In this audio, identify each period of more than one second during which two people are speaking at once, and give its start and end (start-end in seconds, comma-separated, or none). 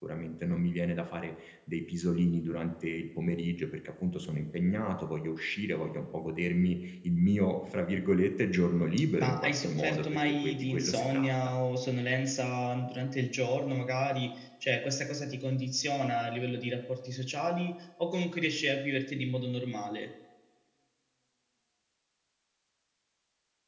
9.2-11.3